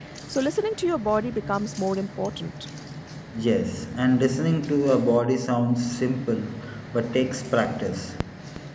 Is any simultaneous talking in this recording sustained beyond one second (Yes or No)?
No